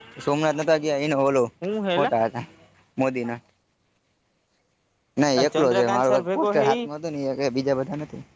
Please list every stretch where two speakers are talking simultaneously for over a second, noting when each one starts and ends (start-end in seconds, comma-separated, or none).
5.4-6.8